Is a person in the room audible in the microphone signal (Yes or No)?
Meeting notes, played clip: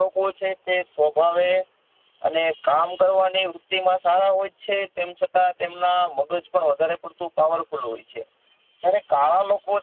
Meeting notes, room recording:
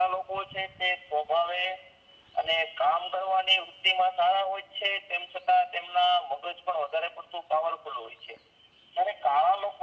No